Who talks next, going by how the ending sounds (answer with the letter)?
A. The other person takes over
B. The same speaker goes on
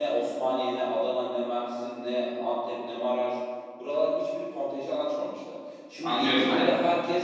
A